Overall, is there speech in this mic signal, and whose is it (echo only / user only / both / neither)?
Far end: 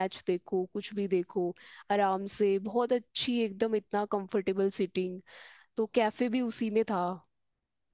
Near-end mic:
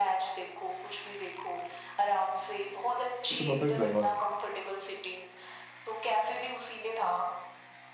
both